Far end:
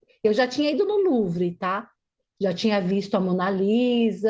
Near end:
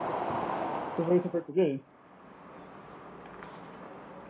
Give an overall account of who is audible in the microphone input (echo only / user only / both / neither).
user only